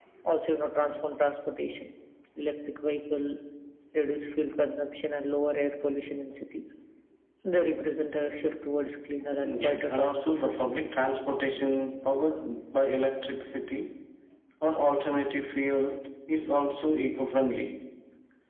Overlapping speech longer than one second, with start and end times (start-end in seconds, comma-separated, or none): 9.4-10.9